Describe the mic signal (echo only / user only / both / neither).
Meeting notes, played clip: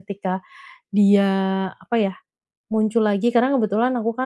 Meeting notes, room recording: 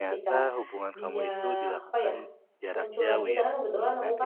both